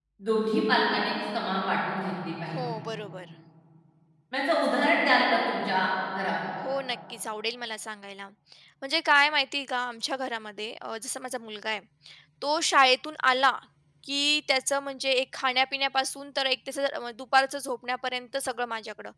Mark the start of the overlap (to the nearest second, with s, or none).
none